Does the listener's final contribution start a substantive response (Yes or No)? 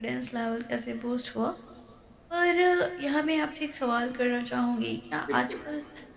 No